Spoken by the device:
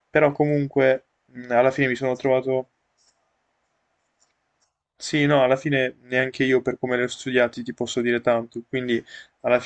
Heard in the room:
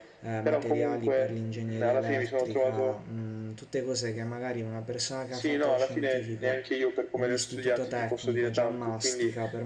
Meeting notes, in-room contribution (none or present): present